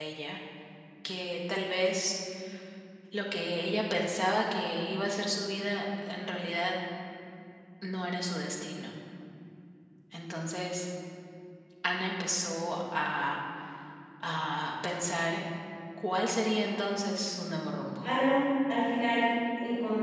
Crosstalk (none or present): none